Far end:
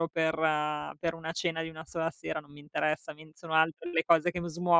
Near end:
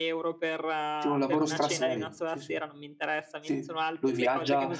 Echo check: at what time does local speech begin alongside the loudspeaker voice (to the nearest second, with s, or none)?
1 s